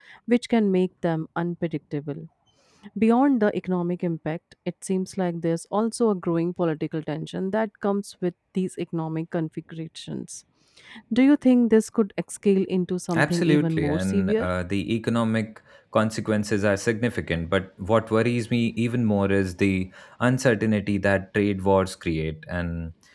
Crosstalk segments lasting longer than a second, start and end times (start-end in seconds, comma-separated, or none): 13.1-14.4